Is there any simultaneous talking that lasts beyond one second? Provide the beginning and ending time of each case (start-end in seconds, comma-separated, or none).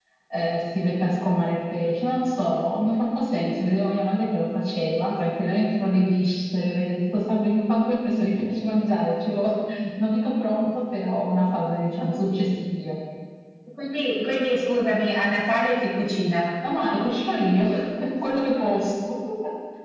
none